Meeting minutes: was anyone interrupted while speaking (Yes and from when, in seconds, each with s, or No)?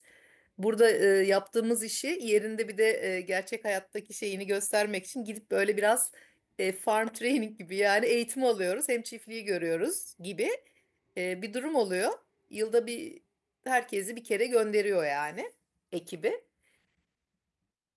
No